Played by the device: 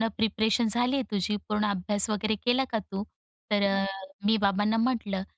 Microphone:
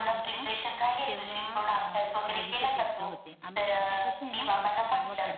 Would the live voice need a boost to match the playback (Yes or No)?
Yes